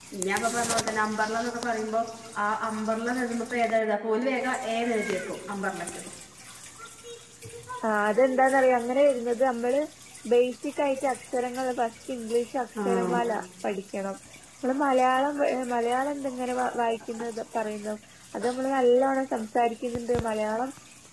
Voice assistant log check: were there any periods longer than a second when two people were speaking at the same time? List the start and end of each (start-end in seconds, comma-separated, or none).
none